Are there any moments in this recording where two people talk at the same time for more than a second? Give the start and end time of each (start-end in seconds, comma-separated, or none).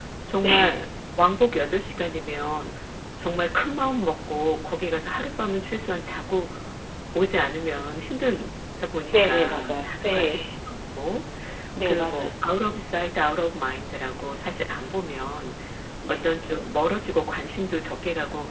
9.1-10.5